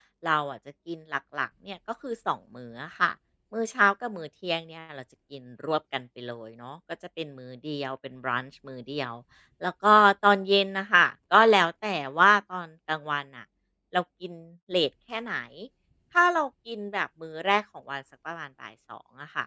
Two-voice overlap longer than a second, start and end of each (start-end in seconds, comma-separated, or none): none